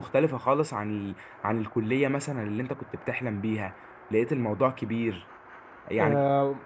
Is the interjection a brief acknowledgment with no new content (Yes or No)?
No